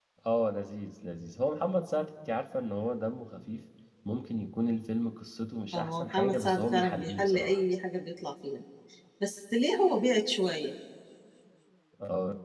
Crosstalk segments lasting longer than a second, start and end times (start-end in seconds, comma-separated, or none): 5.7-7.6